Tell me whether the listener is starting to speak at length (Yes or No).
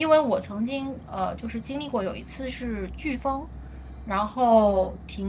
No